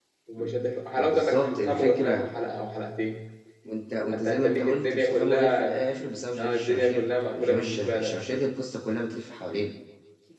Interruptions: present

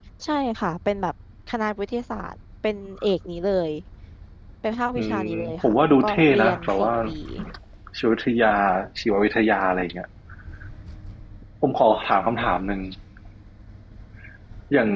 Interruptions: present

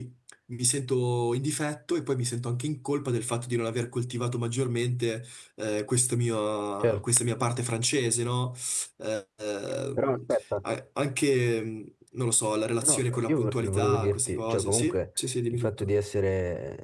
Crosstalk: present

